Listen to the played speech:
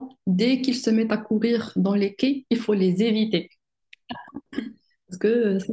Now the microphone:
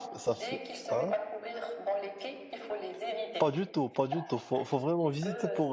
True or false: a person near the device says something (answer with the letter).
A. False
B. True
B